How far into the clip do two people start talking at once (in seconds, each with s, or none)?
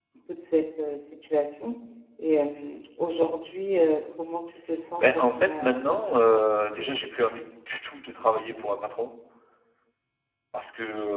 5.0 s